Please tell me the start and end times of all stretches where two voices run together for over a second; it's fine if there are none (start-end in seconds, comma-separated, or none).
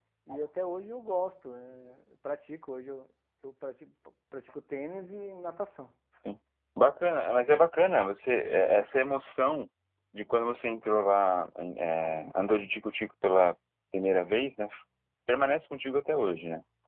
none